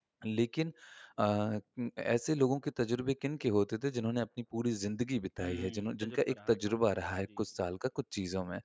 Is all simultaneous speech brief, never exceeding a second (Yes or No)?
No